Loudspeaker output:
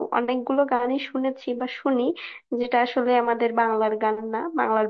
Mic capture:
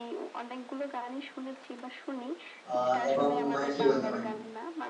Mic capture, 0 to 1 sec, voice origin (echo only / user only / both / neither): echo only